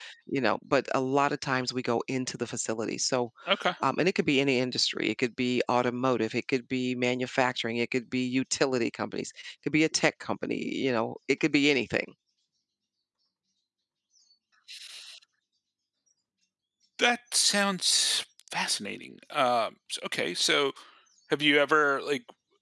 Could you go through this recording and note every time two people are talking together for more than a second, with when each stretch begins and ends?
none

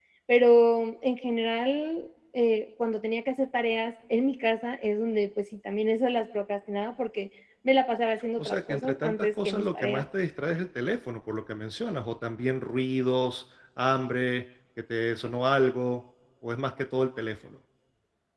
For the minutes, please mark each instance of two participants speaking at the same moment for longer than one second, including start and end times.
8.4-10.0

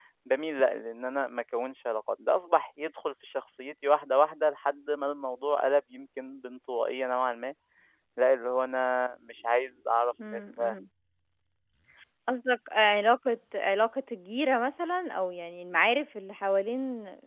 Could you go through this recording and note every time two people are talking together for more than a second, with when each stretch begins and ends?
none

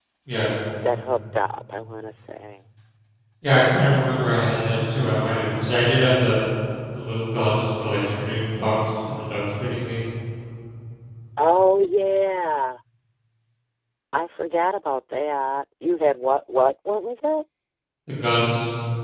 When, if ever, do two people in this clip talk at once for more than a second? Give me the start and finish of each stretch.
none

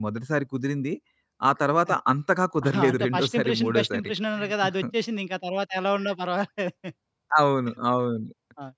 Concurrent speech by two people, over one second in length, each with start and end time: 2.7-4.1

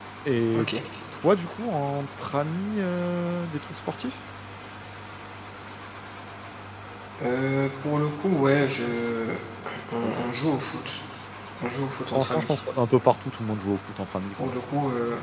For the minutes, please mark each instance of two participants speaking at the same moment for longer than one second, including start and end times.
none

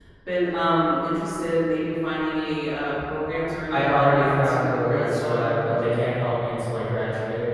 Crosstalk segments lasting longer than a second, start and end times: 3.7-6.0

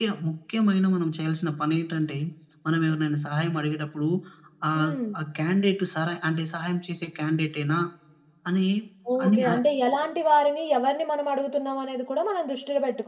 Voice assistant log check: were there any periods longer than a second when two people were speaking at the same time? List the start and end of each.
none

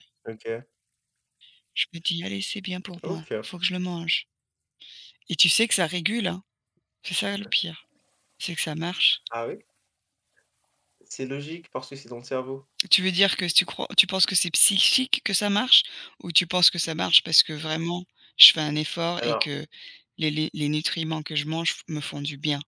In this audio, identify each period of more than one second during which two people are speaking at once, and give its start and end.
none

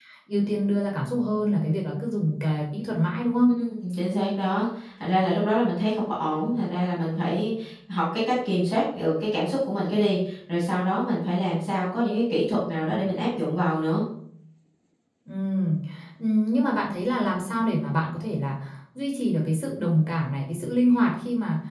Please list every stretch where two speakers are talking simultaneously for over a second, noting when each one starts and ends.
none

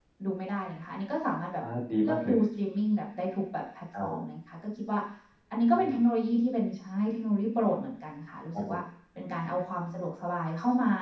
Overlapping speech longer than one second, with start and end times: none

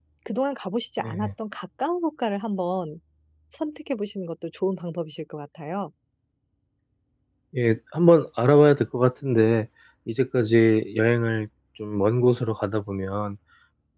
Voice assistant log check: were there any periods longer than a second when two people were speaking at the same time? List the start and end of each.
none

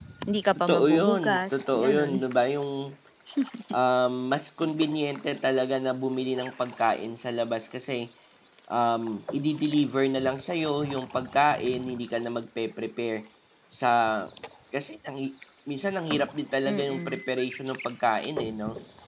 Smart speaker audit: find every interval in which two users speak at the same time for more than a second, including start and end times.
0.7-2.2

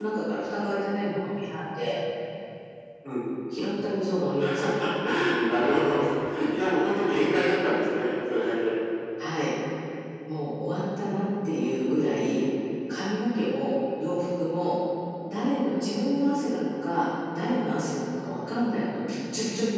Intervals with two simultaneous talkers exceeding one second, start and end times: none

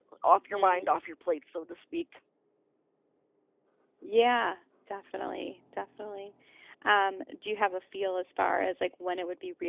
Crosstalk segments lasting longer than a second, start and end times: none

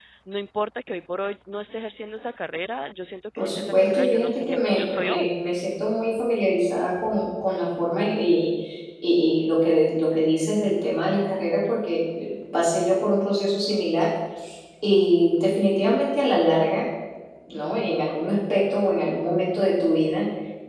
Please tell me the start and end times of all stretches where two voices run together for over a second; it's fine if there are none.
3.4-5.3

